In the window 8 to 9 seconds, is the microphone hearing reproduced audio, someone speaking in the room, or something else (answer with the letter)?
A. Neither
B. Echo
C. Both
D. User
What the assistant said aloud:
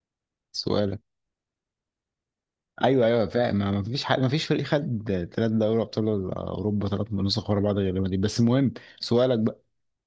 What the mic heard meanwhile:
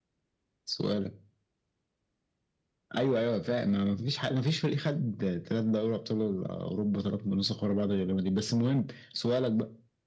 B